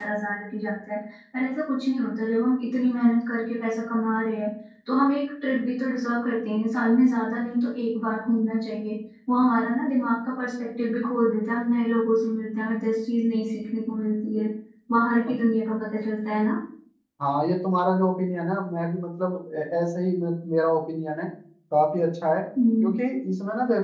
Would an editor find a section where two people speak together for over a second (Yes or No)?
No